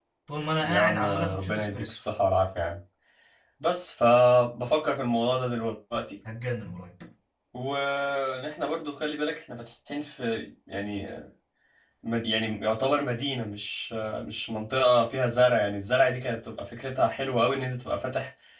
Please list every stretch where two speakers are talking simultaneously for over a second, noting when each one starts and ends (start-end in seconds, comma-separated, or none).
0.6-2.0